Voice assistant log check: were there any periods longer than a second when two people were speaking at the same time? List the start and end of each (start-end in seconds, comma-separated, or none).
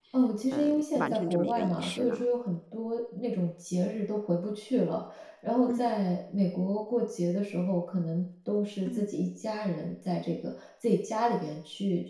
0.5-2.2